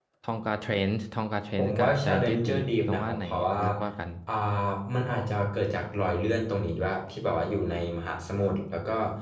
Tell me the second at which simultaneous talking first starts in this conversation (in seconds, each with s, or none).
1.6 s